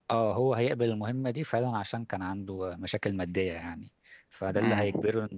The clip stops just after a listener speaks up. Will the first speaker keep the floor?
Yes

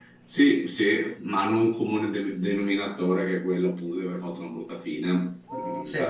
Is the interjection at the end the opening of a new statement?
No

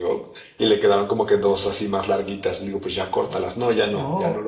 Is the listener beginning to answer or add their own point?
Yes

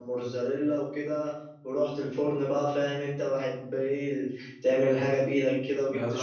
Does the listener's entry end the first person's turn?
Yes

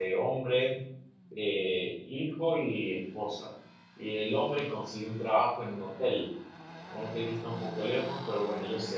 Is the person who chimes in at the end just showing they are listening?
Yes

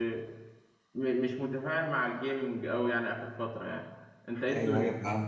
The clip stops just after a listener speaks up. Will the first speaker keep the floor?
No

